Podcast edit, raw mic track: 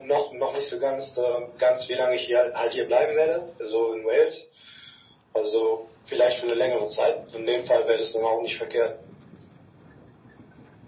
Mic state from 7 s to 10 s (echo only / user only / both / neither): echo only